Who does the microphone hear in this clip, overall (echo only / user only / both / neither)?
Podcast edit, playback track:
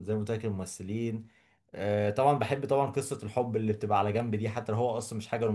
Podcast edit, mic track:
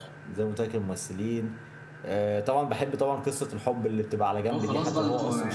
both